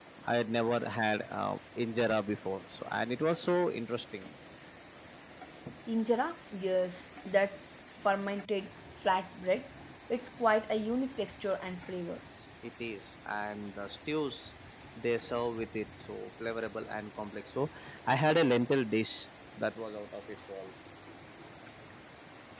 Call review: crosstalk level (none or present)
none